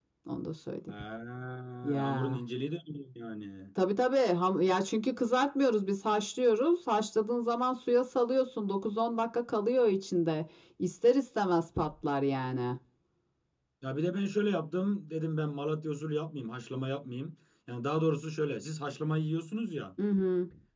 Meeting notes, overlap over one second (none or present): none